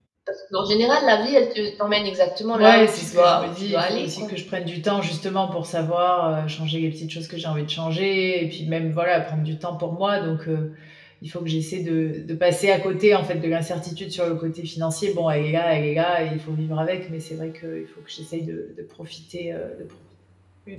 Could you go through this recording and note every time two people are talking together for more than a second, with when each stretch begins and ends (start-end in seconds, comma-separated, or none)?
2.5-4.3